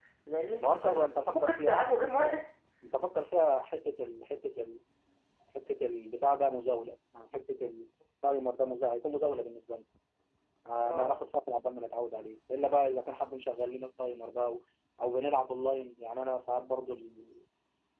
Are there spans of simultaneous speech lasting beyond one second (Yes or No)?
Yes